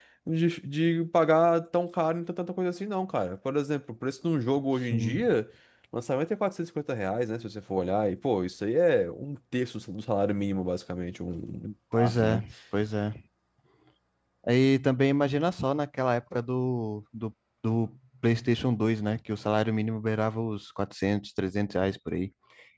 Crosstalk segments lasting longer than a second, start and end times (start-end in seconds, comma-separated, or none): none